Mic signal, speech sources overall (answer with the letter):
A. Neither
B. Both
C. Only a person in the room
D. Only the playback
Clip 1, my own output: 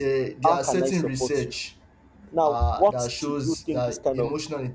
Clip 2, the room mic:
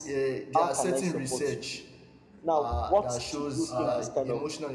B